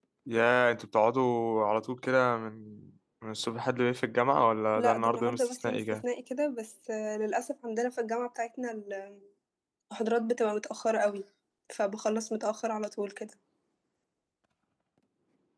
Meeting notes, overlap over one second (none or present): present